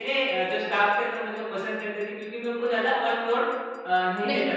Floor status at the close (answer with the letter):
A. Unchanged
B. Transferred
A